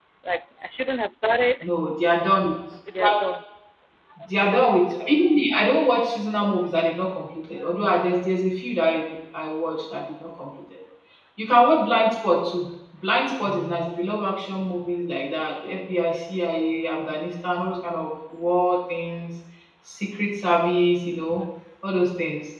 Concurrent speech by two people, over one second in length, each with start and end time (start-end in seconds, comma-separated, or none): none